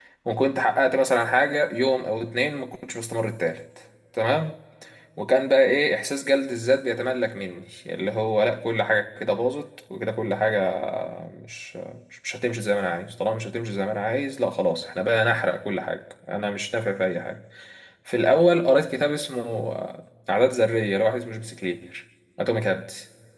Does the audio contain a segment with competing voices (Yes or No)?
No